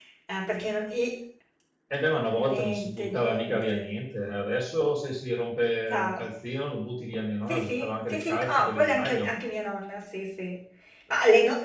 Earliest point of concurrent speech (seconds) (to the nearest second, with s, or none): 2 s